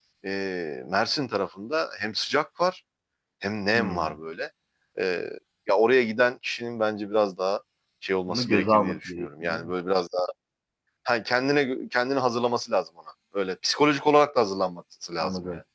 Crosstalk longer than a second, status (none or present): present